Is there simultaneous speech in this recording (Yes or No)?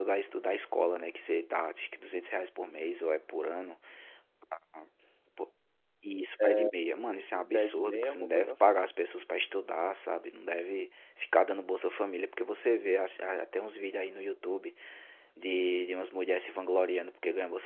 Yes